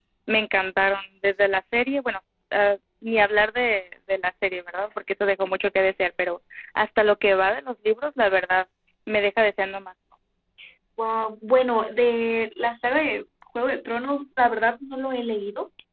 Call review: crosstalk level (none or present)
none